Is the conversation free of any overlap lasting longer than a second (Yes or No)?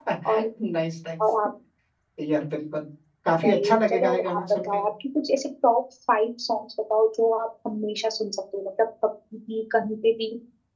No